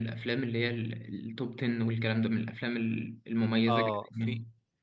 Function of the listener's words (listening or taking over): taking over